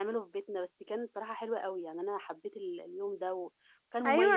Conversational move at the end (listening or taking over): taking over